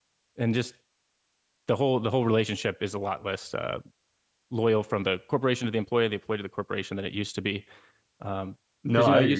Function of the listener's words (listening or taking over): taking over